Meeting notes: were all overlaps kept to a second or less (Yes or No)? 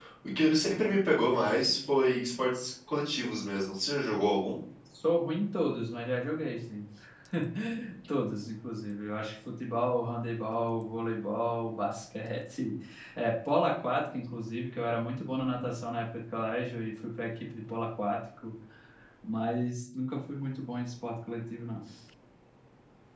Yes